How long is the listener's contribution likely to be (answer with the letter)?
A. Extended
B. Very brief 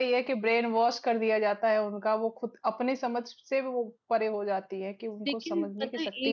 A